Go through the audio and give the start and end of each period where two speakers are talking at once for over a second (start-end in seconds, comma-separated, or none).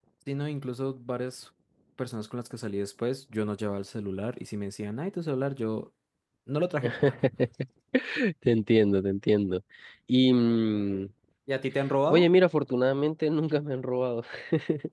none